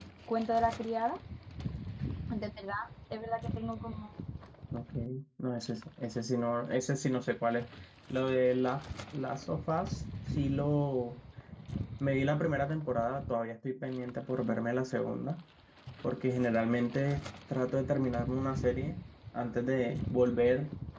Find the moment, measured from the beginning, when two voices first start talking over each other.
none

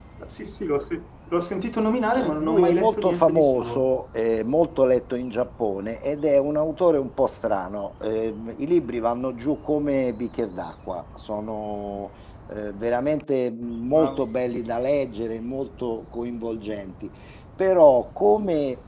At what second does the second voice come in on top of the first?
2 s

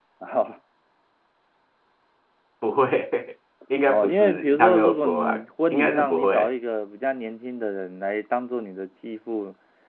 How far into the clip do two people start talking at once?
4 s

